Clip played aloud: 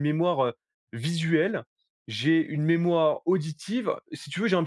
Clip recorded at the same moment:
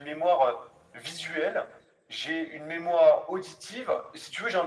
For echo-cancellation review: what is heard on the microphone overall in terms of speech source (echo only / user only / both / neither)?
echo only